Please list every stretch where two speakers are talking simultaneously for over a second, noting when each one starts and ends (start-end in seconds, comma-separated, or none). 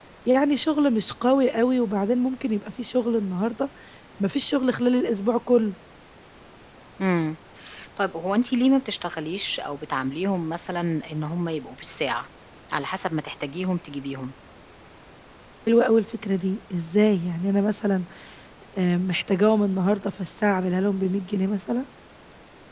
none